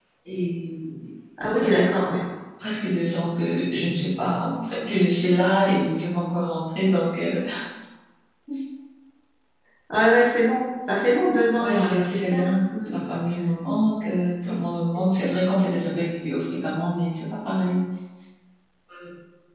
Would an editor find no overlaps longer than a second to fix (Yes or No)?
No